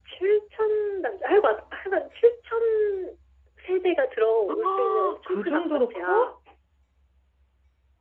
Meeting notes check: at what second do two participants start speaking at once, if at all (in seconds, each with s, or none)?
4.5 s